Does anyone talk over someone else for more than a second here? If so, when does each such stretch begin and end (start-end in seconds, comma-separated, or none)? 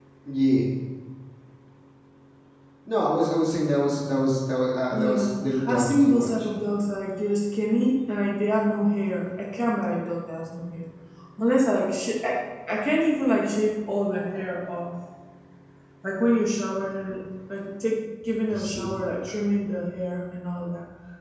4.9-6.3